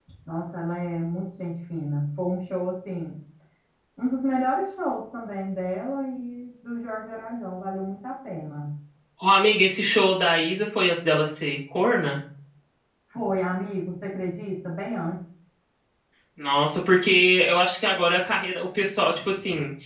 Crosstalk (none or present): none